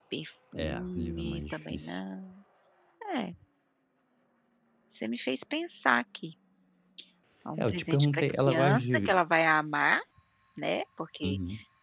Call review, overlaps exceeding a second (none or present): present